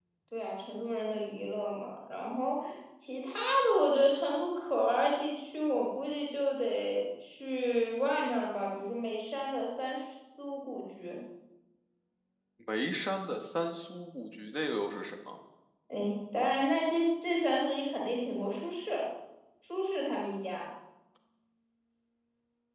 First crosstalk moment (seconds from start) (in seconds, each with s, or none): none